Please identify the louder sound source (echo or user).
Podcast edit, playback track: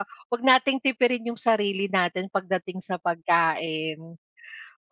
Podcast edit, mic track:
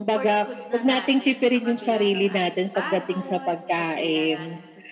echo